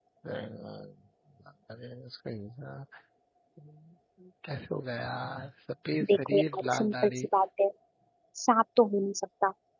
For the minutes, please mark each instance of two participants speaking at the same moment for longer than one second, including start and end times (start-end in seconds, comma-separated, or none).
6.0-7.2